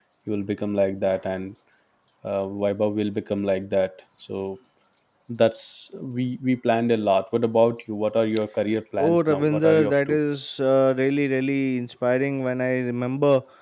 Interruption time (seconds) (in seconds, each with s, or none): 9.0 s